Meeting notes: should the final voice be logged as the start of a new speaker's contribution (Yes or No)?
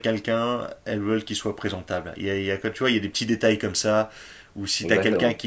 No